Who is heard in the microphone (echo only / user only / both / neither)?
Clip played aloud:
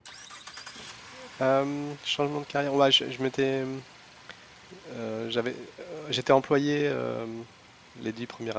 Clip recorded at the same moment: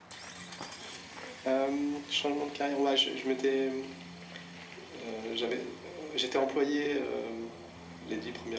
echo only